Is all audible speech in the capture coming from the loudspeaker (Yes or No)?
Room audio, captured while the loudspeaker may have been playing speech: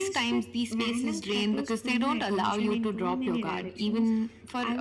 Yes